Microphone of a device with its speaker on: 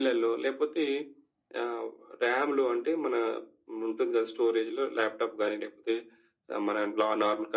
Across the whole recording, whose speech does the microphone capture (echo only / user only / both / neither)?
echo only